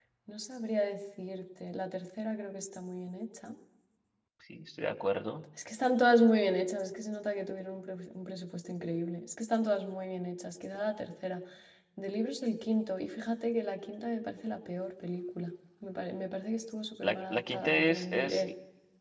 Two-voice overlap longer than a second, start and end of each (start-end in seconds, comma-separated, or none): 17.0-18.4